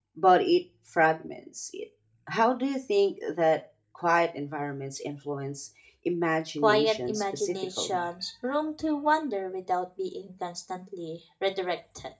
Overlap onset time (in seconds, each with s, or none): 6.6 s